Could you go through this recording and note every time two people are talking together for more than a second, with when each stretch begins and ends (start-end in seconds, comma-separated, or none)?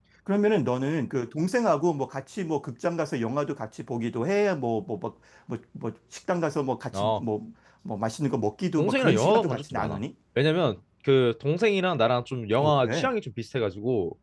8.8-10.0